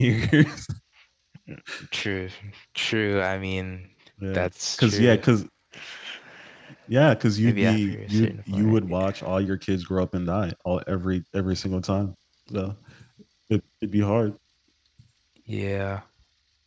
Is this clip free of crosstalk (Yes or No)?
No